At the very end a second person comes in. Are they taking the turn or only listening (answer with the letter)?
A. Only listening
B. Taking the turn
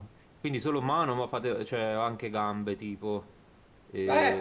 B